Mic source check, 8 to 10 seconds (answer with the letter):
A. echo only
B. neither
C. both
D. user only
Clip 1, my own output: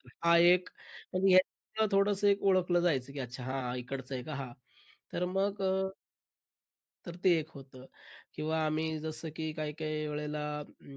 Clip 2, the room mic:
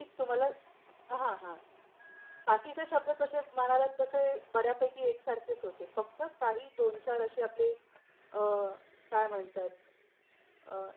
D